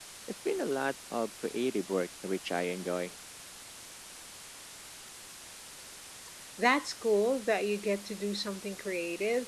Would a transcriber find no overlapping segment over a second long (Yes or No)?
Yes